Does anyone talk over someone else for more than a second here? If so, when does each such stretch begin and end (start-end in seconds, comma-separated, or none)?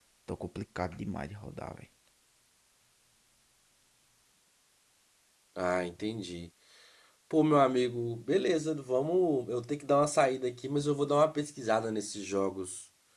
none